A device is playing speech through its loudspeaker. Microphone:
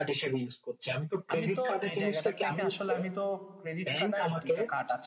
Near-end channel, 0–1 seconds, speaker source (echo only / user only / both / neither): echo only